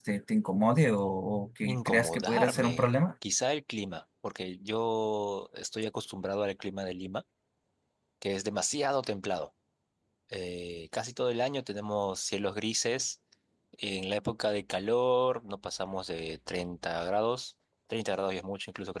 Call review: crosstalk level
present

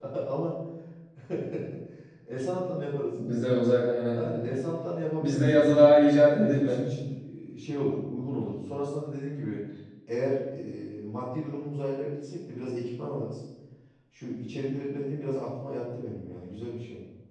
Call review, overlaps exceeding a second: none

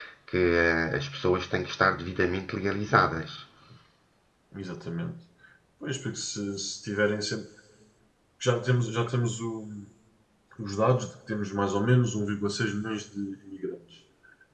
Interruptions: none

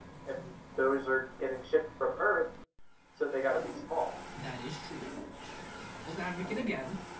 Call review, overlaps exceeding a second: none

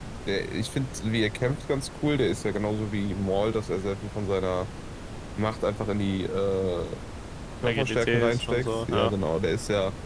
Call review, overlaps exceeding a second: present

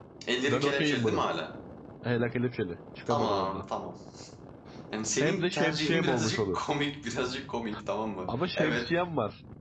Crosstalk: present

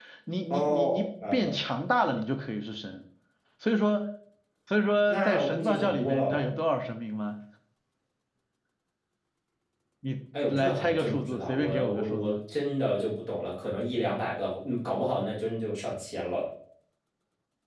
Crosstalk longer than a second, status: present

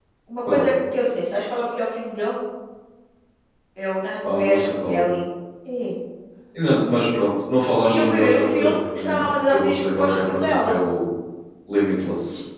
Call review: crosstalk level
present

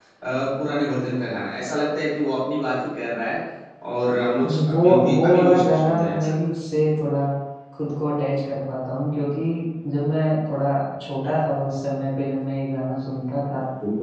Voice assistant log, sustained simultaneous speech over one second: present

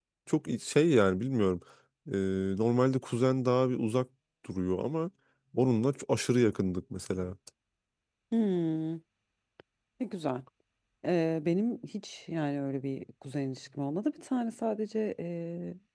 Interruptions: none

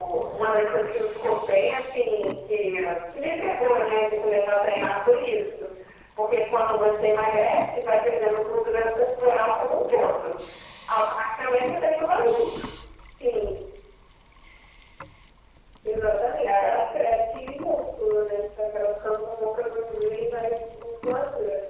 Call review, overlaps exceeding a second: none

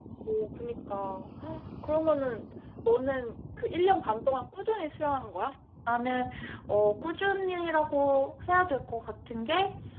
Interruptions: none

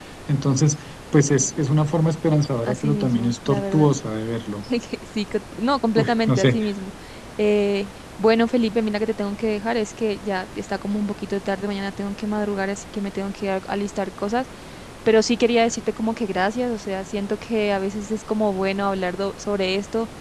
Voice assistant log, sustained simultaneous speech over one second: present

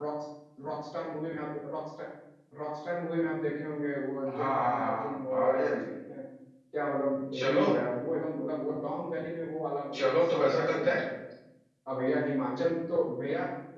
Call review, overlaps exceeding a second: present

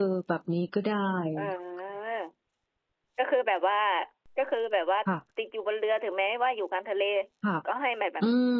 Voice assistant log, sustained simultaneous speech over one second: none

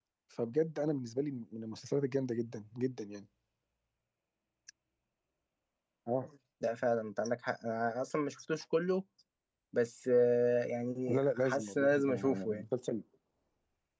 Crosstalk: present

